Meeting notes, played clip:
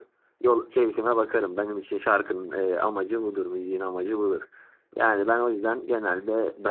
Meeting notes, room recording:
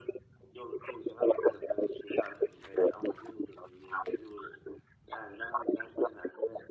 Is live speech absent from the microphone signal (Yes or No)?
Yes